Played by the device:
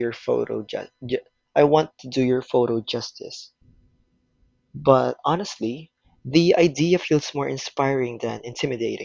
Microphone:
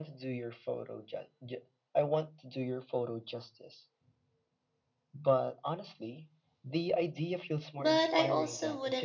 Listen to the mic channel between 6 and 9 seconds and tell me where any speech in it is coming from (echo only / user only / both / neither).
both